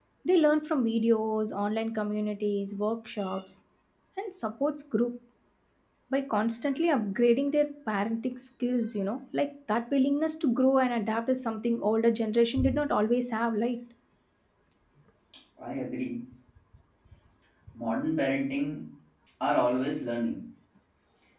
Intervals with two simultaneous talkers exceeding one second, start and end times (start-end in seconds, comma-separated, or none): none